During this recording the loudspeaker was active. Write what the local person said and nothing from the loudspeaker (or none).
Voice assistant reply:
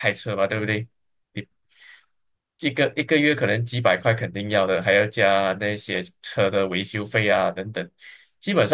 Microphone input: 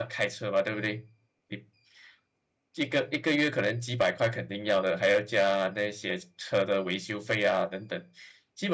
none